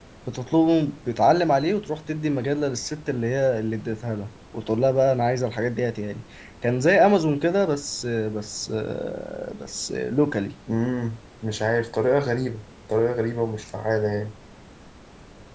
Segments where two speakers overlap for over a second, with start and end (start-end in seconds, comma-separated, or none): none